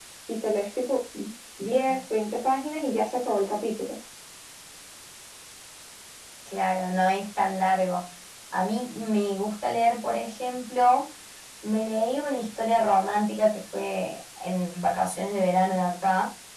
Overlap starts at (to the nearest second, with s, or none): none